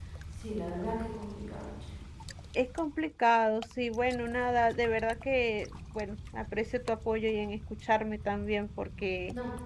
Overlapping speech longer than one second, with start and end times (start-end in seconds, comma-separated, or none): none